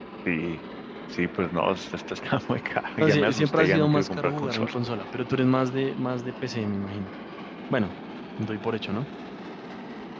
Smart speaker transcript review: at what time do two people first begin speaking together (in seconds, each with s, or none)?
3.0 s